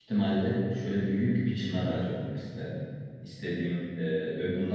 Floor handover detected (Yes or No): No